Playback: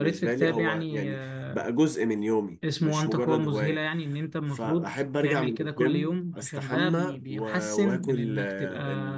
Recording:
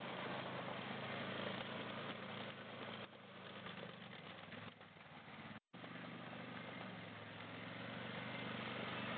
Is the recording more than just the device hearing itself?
No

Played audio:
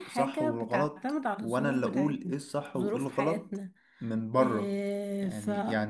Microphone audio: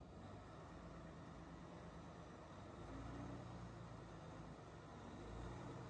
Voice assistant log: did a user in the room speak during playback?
No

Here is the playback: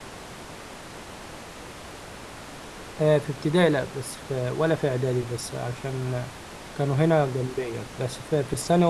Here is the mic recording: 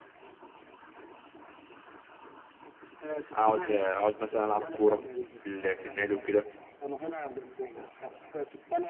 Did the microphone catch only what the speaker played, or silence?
No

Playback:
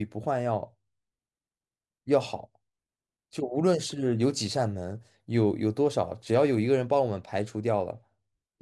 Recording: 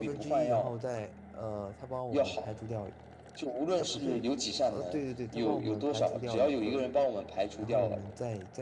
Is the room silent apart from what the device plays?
No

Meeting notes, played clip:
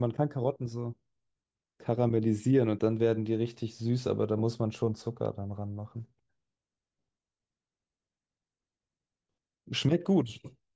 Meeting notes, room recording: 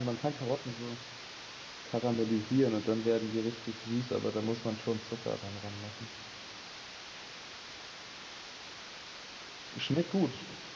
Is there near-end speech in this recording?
No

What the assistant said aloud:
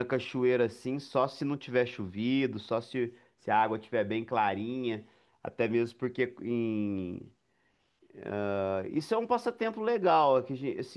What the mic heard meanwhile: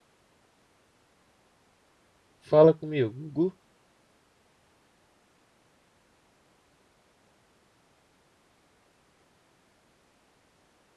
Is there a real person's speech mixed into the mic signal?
Yes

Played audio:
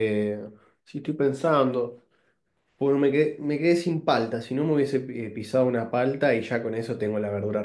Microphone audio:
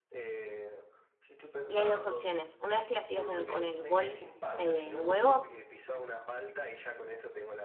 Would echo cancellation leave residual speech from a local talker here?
Yes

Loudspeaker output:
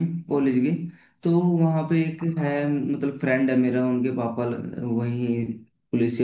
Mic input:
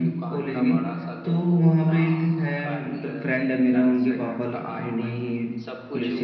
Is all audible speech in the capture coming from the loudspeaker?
No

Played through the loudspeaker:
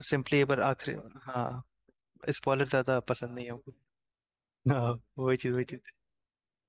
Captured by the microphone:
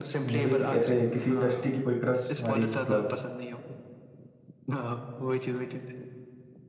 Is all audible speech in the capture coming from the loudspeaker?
No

